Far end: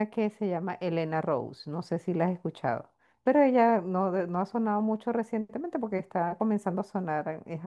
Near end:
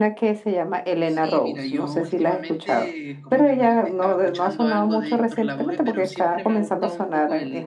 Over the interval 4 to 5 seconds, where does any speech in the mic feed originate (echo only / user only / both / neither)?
both